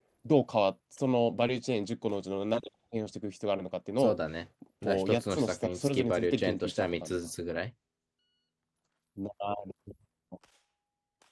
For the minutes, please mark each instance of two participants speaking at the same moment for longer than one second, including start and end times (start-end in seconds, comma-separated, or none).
4.8-7.2